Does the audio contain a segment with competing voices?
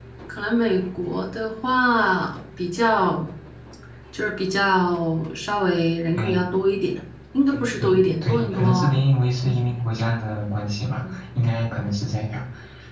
Yes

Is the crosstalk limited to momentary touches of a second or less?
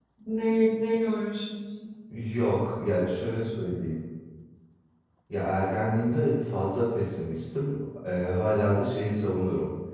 Yes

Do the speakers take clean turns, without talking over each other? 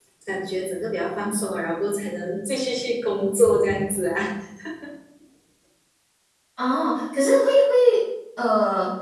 Yes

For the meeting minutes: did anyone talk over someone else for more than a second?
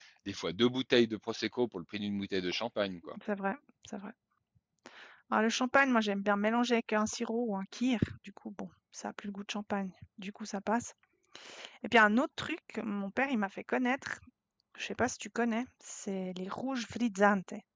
No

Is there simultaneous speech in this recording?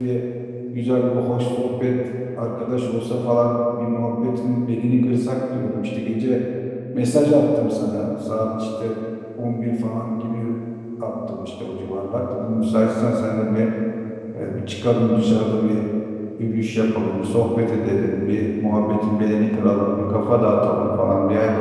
No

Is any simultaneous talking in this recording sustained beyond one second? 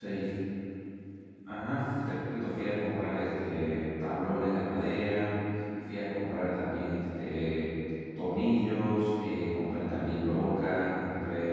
No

